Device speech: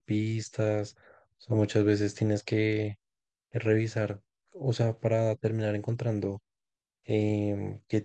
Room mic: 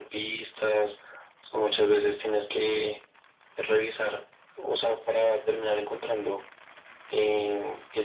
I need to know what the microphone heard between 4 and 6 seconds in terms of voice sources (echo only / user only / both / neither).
echo only